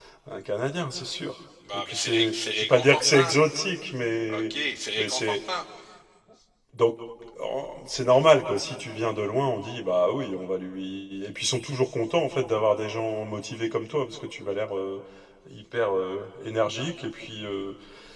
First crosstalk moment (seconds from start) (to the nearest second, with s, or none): 2 s